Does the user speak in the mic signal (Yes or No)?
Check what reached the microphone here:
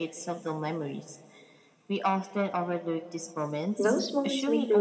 Yes